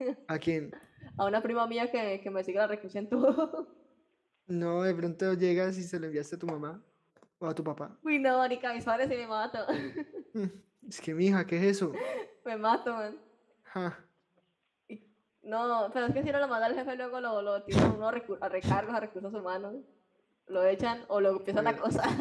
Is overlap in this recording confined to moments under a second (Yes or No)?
Yes